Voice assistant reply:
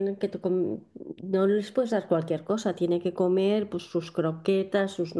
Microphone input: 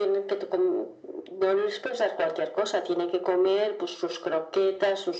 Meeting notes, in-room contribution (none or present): none